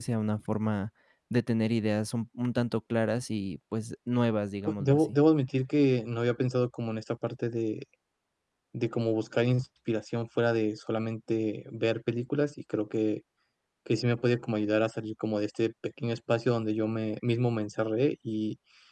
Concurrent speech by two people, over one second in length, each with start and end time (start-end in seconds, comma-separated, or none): none